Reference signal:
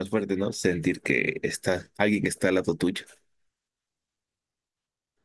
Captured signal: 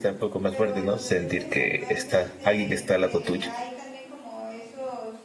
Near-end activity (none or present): present